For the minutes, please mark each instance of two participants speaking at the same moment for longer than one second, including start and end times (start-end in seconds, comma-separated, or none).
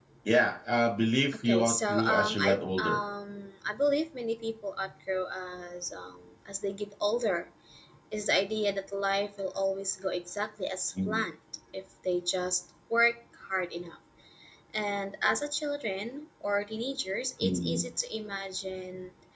1.4-3.0